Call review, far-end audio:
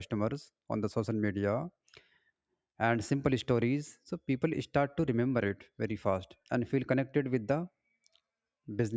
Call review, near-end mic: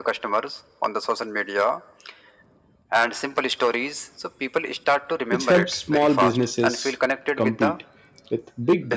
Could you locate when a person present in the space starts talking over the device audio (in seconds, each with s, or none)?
5.3 s